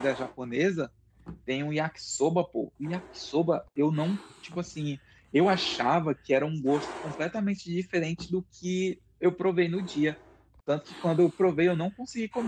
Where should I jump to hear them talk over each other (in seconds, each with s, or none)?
none